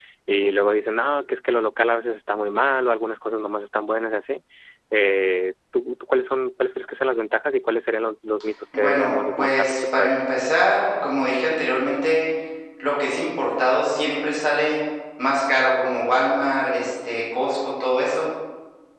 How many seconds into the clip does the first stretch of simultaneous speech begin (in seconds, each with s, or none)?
8.7 s